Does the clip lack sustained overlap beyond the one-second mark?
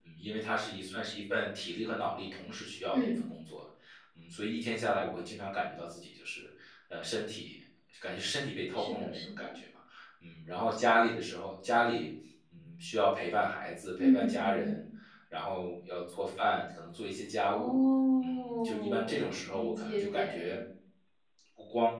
No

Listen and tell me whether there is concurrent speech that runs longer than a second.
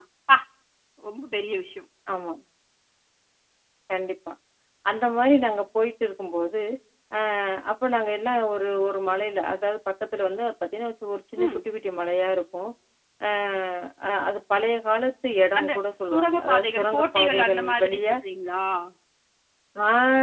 Yes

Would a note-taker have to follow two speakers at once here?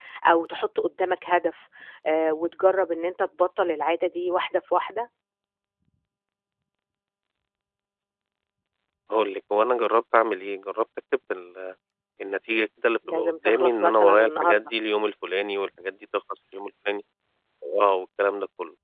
Yes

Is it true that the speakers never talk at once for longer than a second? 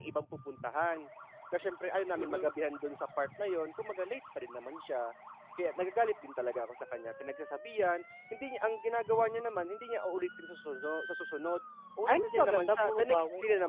No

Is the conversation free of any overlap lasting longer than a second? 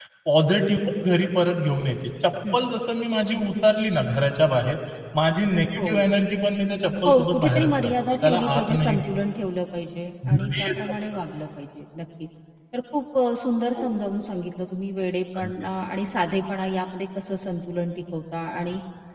No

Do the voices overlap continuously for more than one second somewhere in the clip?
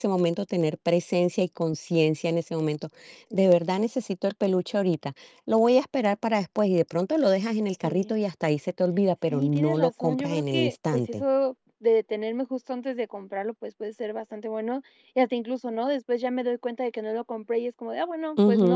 Yes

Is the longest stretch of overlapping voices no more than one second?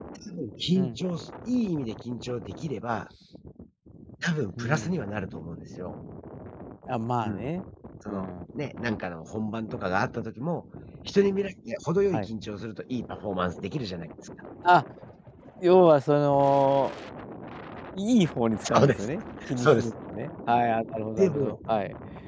Yes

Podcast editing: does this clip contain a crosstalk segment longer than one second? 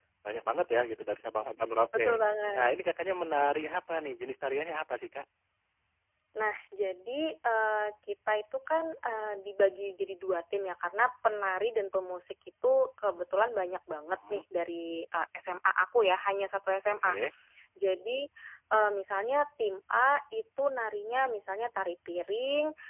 No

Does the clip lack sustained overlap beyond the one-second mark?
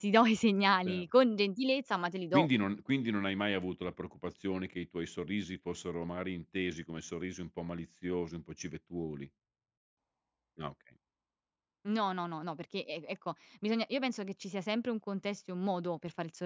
Yes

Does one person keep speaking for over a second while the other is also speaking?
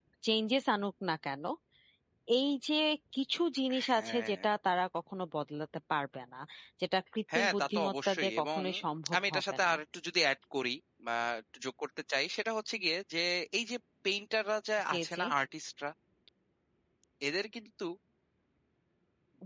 Yes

